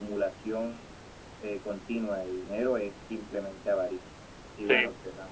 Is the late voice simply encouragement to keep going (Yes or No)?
Yes